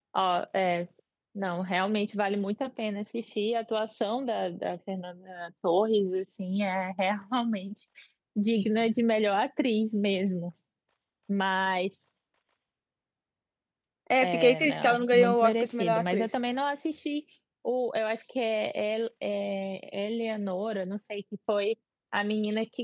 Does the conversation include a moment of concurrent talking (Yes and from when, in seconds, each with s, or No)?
Yes, from 14.2 s